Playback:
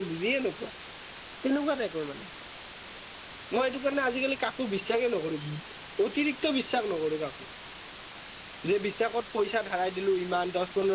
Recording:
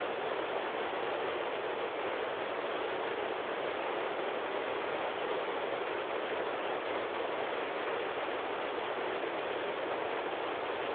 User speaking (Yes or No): No